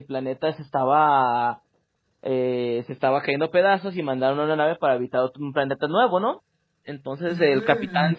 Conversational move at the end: listening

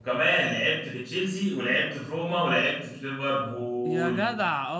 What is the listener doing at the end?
taking over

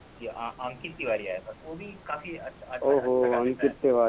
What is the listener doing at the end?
taking over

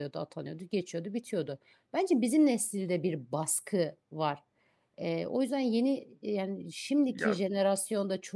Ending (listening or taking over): listening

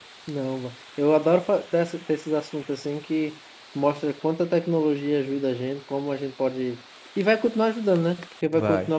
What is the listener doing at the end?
listening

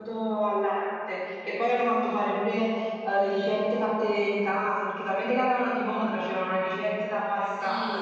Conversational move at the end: taking over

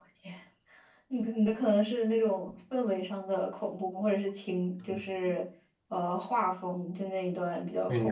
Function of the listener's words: taking over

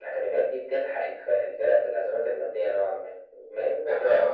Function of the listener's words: taking over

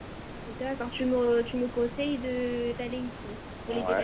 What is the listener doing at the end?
taking over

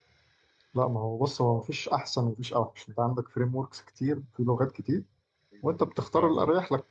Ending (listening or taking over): listening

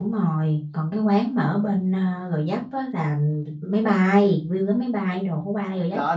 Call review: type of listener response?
taking over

